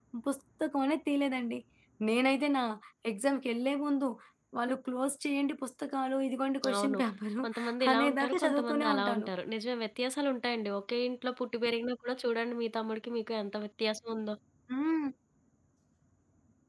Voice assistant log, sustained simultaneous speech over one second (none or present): present